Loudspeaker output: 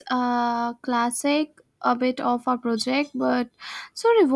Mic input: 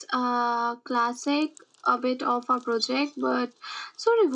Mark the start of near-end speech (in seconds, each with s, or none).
none